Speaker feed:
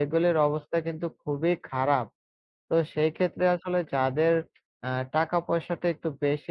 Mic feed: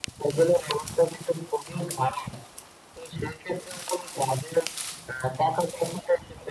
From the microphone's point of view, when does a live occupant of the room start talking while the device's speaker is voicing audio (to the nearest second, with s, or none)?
none